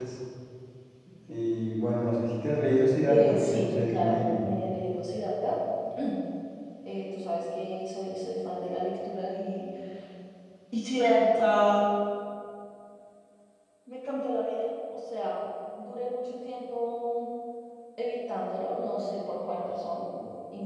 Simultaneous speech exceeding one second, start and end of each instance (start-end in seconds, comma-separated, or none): 3.1-4.4